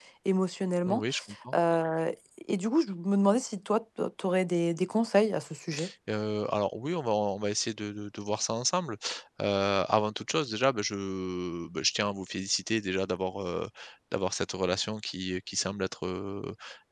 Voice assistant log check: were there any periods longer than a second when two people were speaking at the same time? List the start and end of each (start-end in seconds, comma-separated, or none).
none